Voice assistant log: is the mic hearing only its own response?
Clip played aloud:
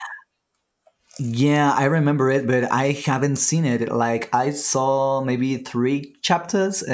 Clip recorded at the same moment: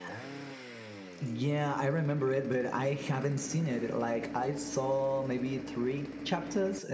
Yes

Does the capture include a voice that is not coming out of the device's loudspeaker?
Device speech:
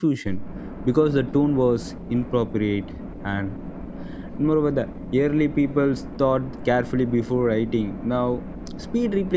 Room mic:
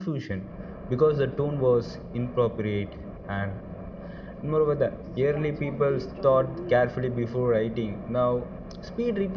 Yes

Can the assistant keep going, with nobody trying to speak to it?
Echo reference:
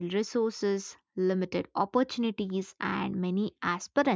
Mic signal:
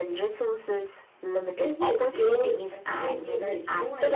No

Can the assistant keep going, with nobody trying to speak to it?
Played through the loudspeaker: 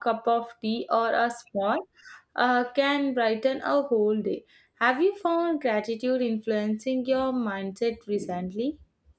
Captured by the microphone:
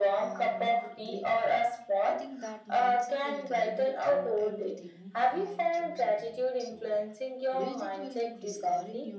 No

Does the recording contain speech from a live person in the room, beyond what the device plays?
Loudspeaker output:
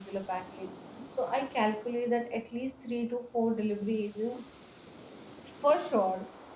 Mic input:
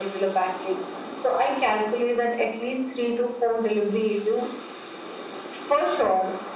No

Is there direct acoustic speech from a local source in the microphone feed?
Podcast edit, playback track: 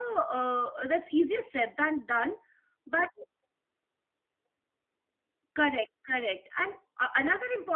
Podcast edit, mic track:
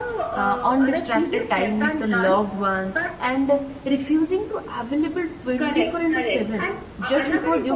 Yes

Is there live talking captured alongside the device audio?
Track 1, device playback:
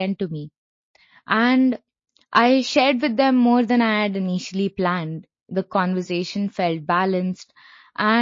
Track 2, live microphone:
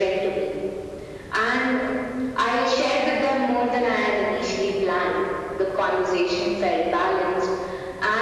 No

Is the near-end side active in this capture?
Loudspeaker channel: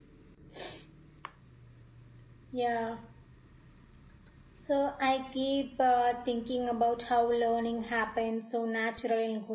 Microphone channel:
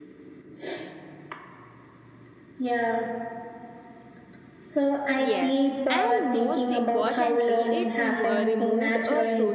Yes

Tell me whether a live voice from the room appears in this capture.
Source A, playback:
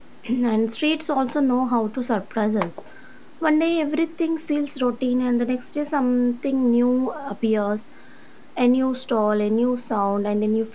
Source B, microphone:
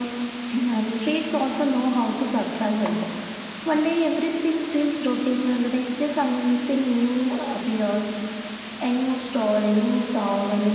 No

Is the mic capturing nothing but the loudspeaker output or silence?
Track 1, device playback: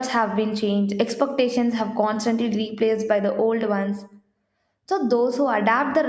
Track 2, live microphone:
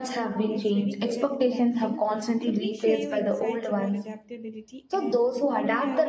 No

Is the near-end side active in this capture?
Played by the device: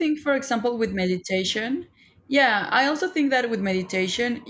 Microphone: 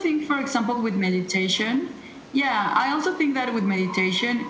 No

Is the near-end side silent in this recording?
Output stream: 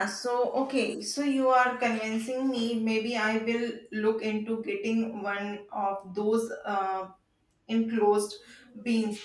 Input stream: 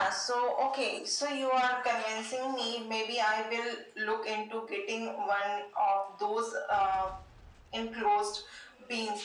Yes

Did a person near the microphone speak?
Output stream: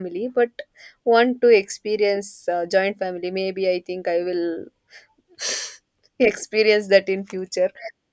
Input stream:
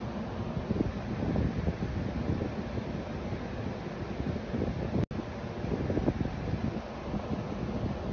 No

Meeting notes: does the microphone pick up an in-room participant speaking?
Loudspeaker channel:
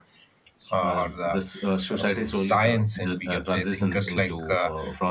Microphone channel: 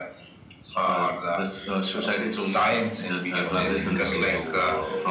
Yes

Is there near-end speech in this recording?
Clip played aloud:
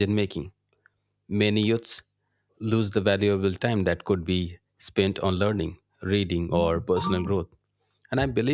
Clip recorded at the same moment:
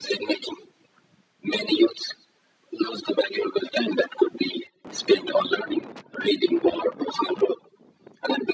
No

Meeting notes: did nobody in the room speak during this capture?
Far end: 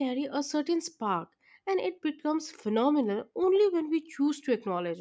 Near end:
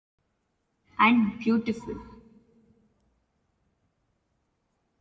No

